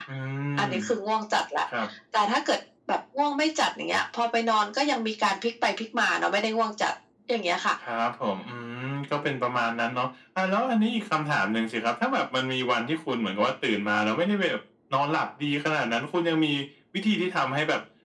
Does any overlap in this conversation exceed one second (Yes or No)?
No